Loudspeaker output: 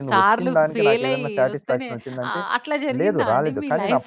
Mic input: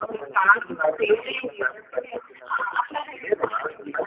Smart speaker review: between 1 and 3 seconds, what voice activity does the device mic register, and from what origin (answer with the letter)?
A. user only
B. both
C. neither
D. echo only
D